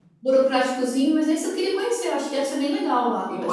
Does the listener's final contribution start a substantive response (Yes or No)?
Yes